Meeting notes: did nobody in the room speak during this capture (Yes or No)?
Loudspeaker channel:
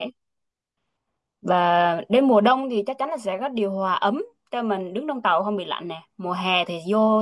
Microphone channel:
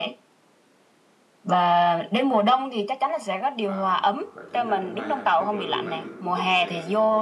No